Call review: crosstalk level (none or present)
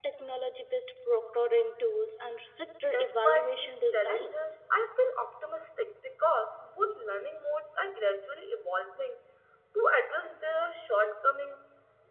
present